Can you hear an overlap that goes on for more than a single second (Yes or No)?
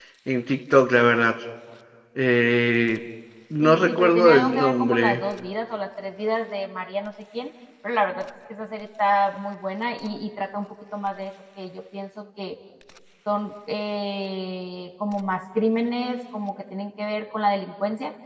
Yes